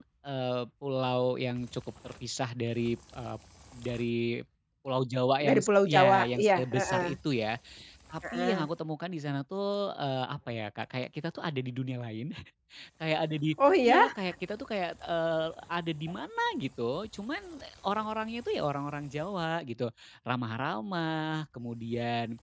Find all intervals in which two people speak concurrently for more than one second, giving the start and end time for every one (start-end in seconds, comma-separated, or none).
5.4-7.1